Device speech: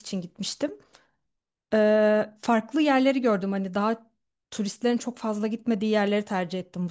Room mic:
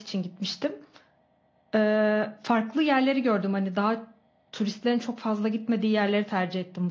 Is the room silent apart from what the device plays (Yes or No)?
Yes